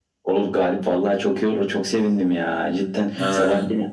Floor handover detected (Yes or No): No